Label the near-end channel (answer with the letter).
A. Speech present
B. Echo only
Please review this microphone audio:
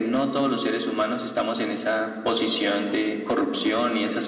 B